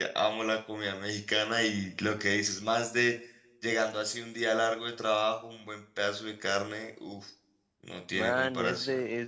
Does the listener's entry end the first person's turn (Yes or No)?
Yes